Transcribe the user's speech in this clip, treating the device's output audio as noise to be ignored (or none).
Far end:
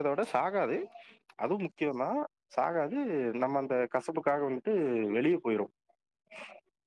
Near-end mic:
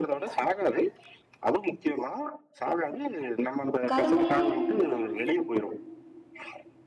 கரும்புல